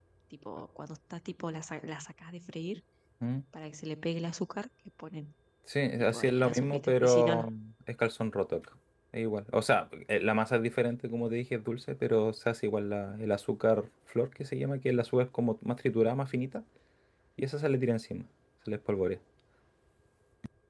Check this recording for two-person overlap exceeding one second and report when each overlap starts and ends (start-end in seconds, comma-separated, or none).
6.0-7.5